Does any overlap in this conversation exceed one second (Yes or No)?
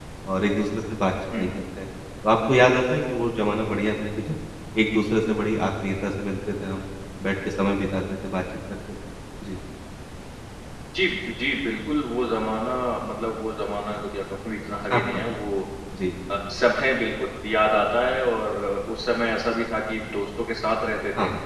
No